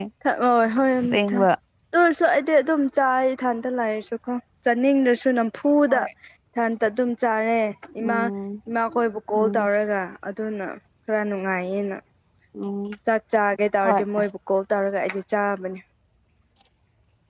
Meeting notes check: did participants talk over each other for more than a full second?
No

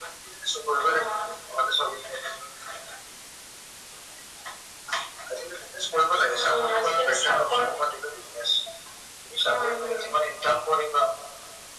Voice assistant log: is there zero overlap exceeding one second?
No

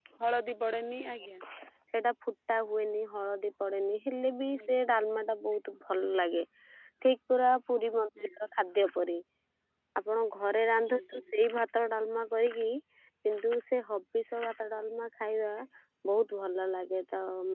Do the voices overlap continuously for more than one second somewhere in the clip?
No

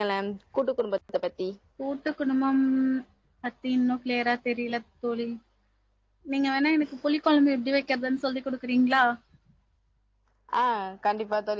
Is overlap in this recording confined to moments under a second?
Yes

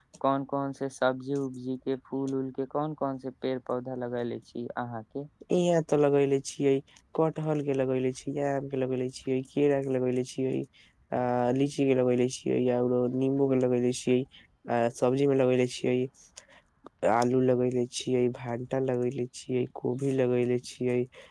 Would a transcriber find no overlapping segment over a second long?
Yes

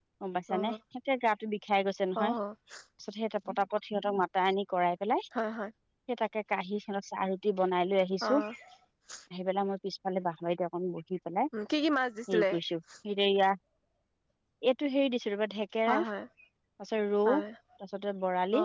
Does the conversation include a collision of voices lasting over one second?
No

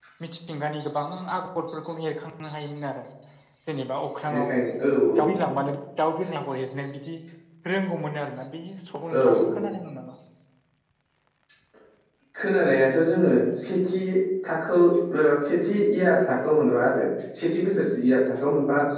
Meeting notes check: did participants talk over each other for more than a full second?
No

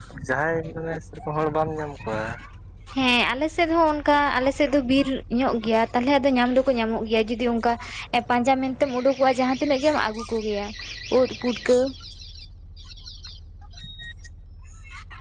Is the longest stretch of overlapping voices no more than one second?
Yes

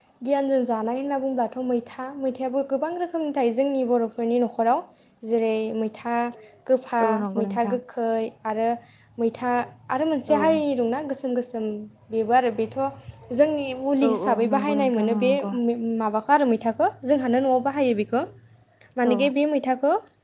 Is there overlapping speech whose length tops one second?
Yes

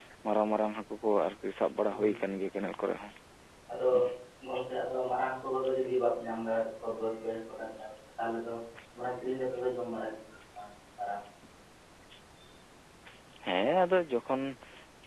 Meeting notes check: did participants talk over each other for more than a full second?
No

